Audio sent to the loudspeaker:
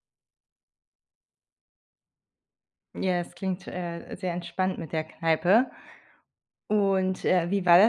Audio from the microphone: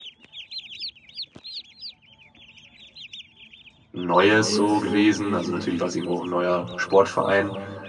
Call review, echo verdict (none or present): none